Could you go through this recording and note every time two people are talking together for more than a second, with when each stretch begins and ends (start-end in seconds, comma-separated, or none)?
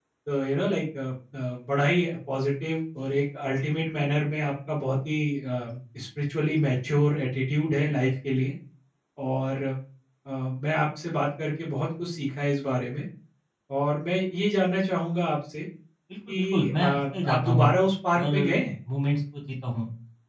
16.3-17.7